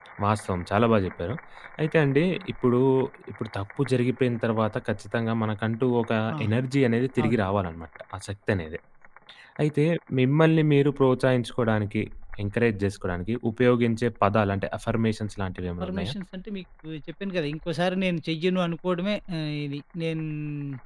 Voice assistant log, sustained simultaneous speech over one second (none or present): none